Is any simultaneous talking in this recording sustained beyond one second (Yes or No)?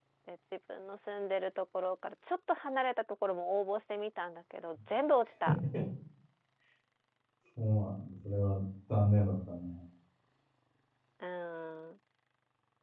No